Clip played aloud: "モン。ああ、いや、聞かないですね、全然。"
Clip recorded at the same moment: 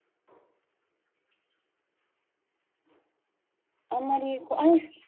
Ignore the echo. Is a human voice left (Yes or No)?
Yes